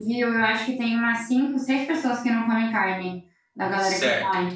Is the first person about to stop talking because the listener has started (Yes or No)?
Yes